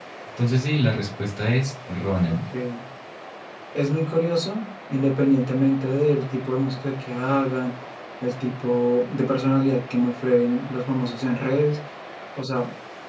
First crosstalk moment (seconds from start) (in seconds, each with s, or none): none